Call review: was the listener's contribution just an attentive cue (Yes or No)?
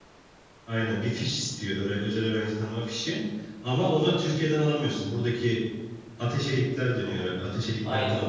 No